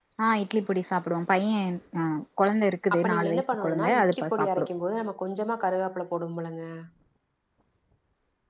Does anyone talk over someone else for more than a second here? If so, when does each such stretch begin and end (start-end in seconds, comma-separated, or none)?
2.9-4.7